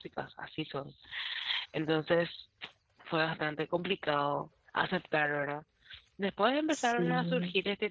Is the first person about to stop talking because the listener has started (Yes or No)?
No